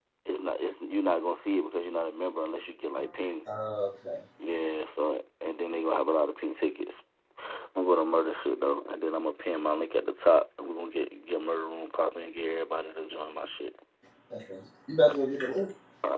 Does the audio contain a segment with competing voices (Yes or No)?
No